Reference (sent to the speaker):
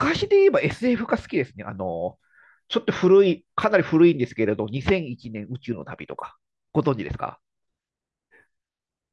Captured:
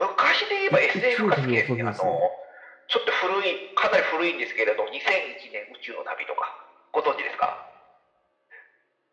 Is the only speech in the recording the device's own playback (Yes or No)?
No